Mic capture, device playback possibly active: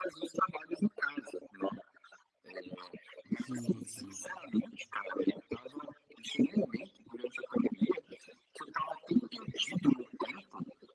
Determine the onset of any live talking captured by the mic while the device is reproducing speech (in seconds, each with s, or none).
3.3 s